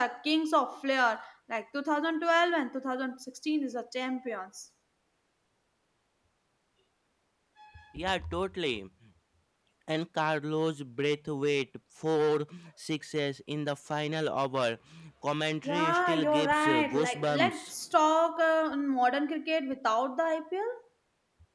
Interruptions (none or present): present